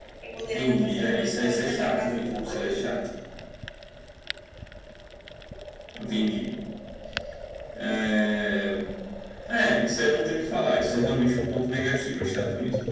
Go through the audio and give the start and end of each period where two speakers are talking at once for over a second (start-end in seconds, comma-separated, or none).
0.5-2.9